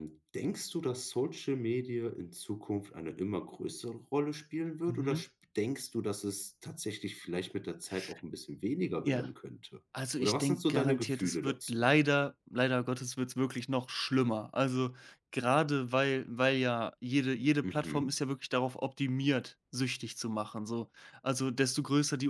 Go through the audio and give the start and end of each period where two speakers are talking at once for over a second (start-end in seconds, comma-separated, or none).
10.2-11.9